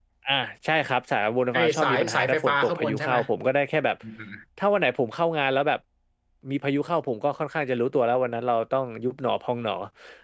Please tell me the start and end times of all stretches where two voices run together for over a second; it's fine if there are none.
1.5-3.2

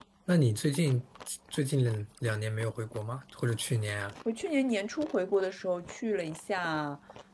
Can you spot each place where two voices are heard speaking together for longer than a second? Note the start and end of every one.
none

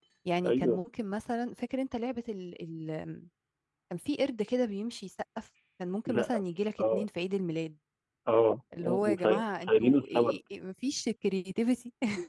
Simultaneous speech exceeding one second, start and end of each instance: 8.8-10.4

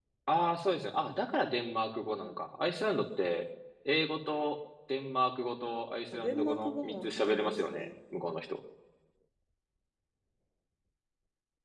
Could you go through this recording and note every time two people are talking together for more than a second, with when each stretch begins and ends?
6.1-7.9

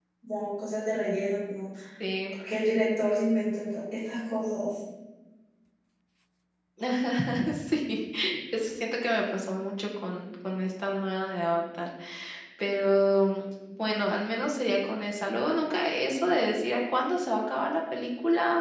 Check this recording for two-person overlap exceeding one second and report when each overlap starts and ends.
none

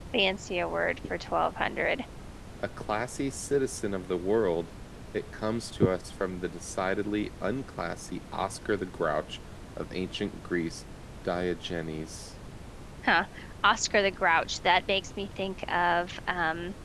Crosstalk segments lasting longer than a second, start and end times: none

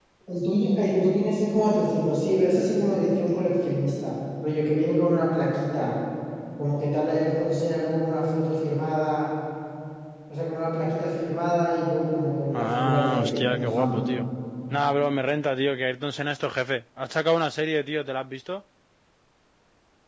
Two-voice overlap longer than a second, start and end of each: 12.5-14.0

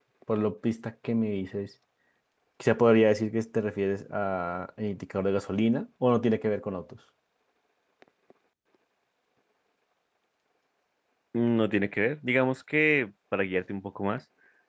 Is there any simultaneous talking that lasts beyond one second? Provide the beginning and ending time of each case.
none

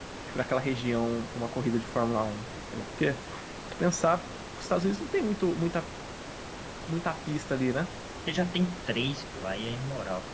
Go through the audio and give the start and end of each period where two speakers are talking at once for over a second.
none

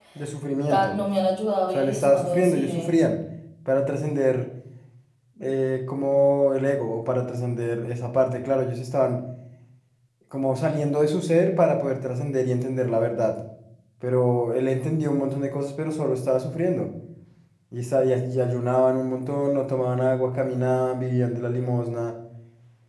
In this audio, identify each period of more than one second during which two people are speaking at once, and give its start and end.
1.7-2.9

